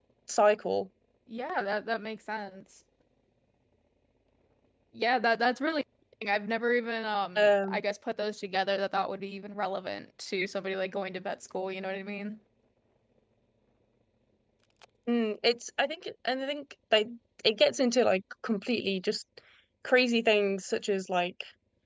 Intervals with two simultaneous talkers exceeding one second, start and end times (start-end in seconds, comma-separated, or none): none